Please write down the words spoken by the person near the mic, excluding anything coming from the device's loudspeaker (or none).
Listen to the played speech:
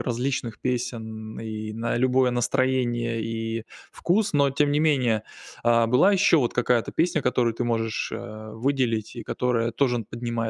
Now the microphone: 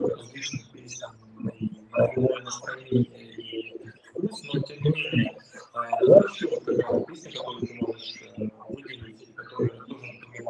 none